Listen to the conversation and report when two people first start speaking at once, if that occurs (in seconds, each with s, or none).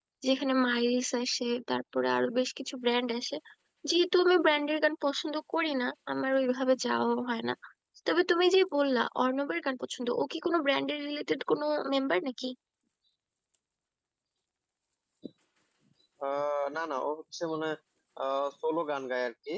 none